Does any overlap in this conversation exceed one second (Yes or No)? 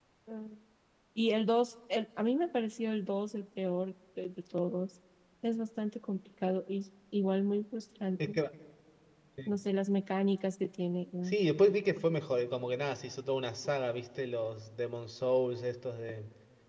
No